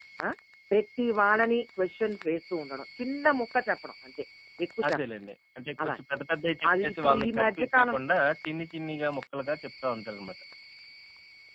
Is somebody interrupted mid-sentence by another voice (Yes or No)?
Yes